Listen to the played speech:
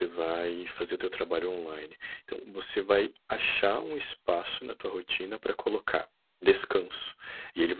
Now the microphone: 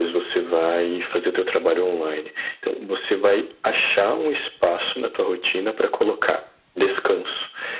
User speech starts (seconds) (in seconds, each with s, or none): none